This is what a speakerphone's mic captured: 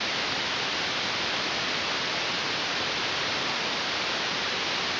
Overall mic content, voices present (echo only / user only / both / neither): neither